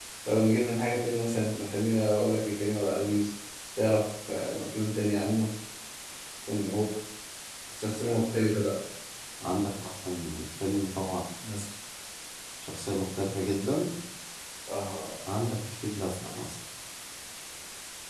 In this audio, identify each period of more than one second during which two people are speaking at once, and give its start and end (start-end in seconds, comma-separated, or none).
none